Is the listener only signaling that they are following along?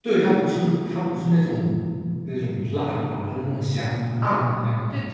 No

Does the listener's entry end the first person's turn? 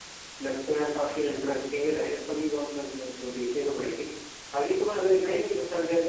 No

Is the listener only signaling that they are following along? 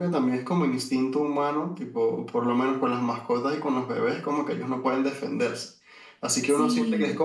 Yes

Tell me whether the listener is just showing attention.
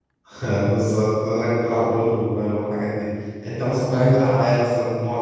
Yes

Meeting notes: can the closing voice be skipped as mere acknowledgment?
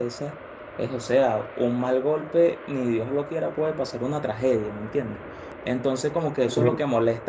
Yes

